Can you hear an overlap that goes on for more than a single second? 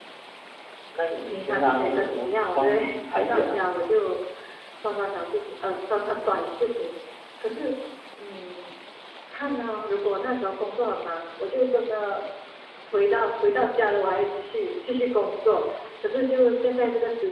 Yes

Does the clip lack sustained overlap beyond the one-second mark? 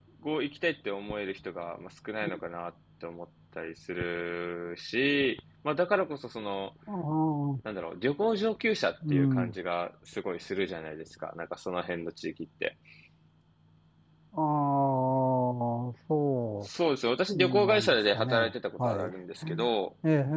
No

